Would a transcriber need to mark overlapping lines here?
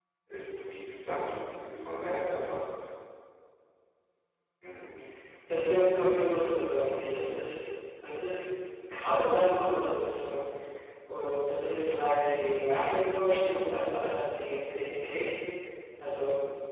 No

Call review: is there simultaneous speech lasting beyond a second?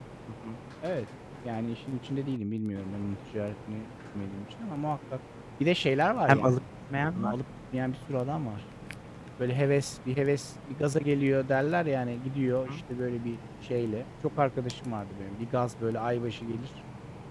No

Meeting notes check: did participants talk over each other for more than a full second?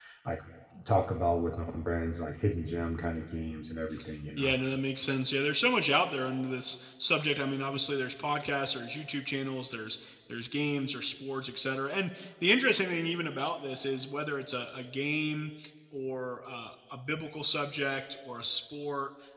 No

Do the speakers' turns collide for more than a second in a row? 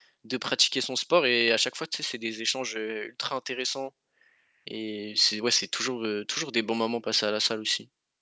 No

